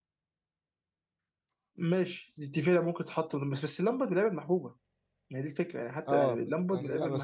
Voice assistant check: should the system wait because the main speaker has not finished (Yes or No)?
No